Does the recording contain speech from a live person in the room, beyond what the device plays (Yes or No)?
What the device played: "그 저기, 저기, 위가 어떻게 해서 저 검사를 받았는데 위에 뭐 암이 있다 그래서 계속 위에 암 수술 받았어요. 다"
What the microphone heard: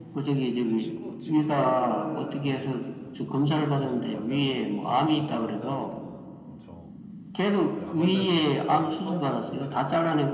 Yes